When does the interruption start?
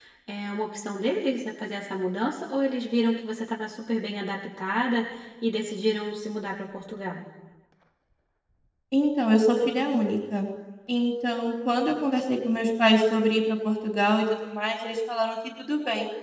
none

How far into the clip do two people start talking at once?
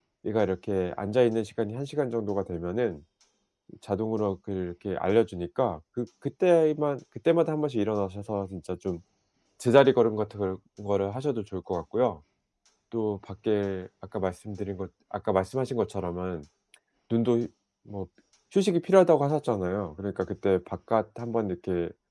none

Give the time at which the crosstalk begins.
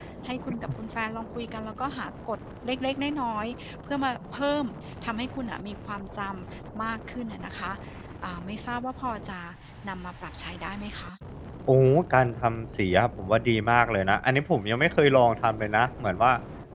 none

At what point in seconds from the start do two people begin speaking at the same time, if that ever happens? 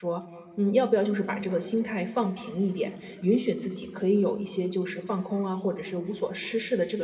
none

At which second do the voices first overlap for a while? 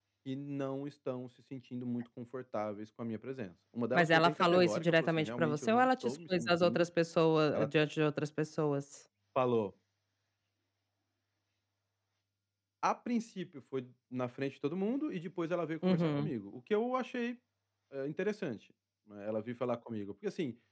4.0 s

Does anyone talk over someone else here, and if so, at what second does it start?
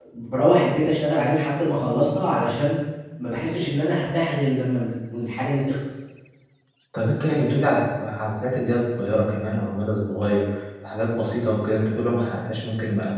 none

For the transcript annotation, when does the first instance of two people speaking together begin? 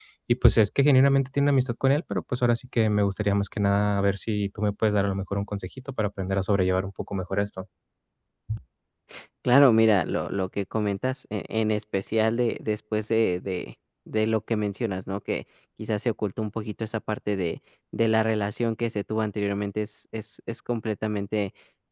none

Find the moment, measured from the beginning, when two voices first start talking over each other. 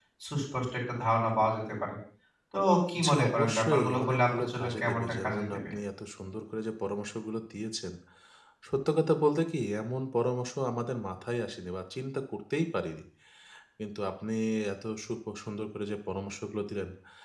3.0 s

